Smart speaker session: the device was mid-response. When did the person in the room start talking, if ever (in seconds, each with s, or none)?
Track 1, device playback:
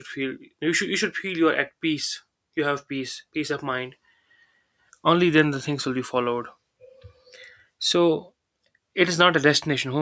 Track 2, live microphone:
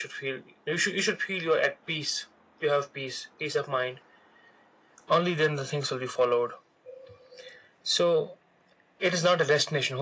none